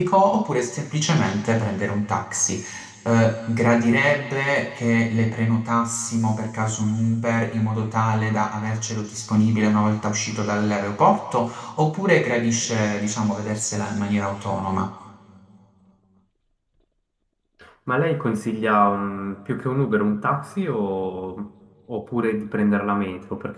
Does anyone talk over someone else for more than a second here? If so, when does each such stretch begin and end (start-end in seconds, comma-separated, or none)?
none